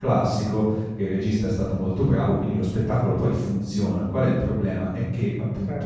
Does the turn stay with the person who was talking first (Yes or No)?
Yes